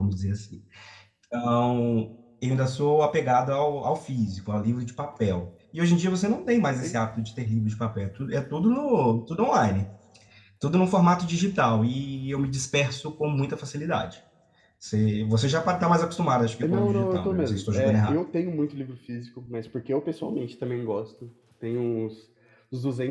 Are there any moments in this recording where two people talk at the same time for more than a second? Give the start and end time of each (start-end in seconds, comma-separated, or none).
16.6-18.2